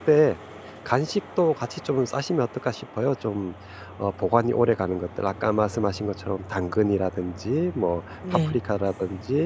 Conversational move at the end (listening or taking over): listening